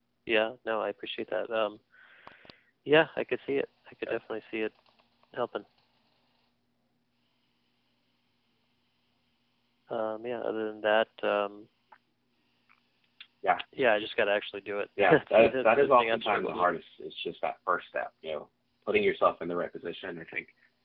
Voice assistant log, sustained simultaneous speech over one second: present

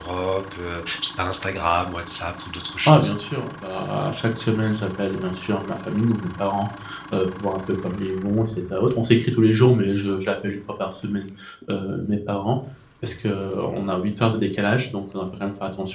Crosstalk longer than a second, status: none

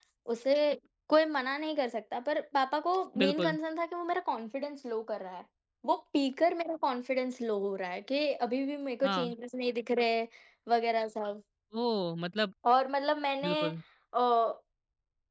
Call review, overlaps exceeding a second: none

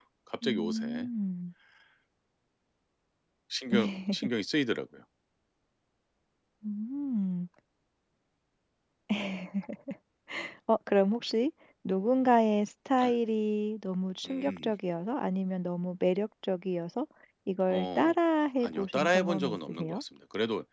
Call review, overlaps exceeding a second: present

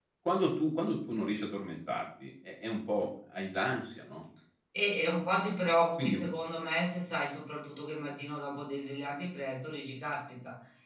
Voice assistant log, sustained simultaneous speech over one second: none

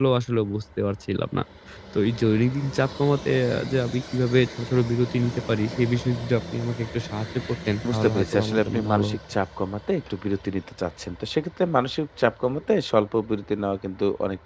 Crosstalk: present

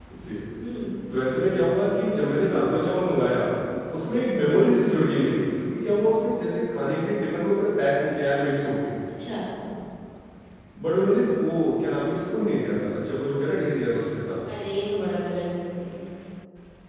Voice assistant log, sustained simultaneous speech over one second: none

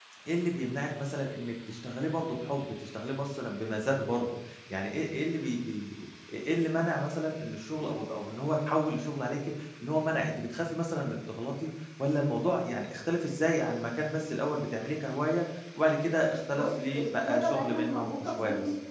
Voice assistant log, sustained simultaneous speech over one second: present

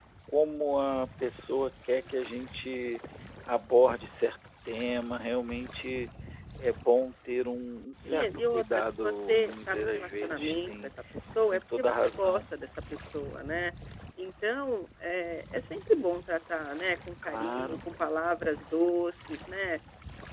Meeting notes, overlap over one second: present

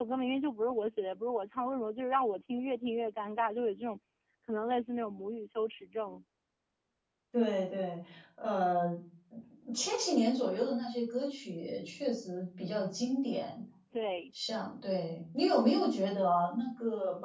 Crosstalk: none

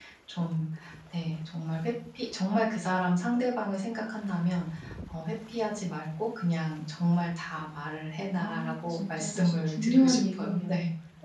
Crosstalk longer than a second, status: present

